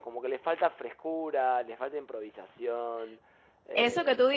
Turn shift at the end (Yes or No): Yes